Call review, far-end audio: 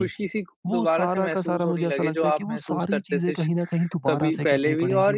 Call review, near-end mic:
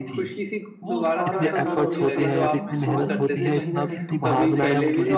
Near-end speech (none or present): present